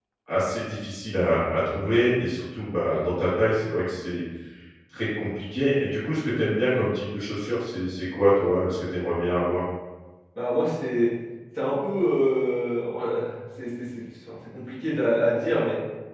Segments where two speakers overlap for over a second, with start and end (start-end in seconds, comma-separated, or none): none